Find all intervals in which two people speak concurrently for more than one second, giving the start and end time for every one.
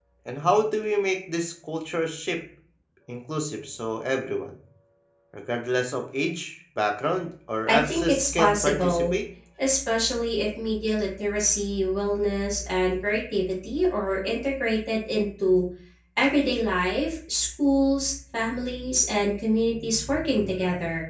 7.7-9.2

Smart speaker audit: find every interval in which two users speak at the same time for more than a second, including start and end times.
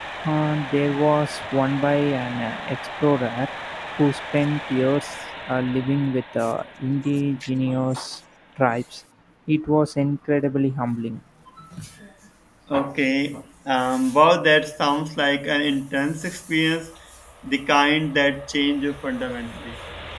none

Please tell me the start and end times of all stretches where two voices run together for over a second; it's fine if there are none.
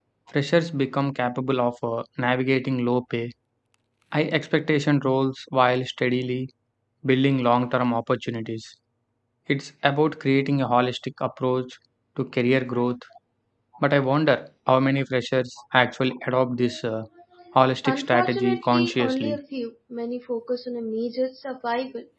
17.9-19.4

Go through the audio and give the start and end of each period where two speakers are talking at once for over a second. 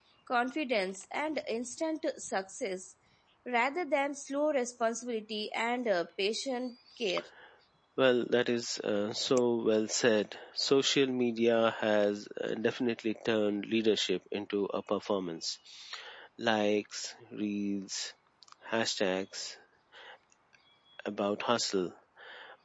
none

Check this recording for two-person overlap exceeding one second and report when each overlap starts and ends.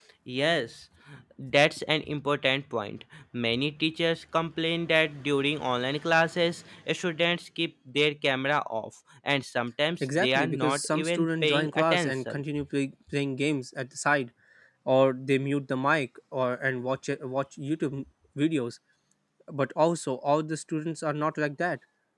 10.0-12.4

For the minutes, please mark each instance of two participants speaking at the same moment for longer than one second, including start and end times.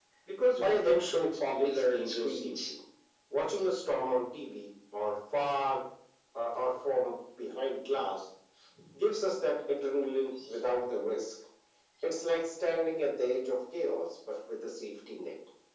0.6-2.7

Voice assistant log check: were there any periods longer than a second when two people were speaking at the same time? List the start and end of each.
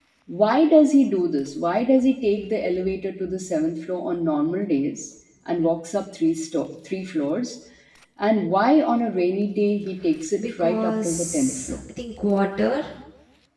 10.4-11.8

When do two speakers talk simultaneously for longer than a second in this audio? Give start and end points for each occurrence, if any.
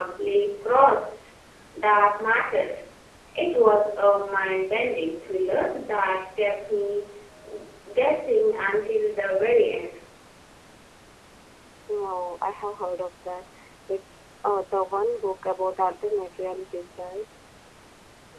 none

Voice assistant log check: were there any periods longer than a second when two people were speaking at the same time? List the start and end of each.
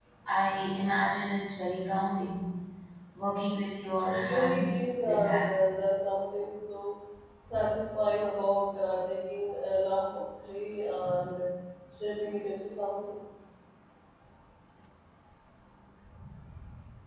4.1-5.4

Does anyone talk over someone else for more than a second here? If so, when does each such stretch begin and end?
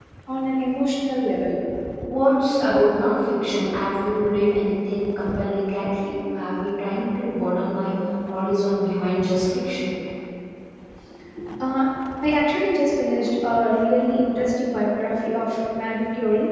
none

